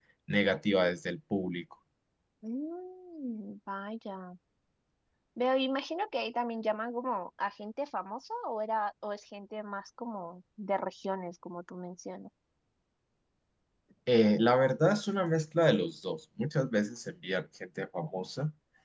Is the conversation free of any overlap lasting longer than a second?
Yes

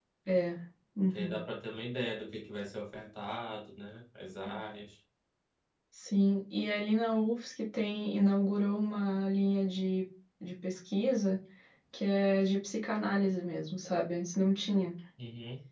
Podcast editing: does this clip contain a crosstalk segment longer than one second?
No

